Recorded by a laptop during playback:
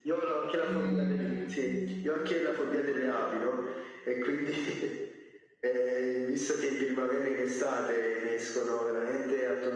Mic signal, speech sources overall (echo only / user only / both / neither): both